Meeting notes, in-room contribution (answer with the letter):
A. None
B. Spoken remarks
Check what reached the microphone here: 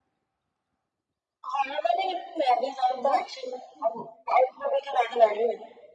B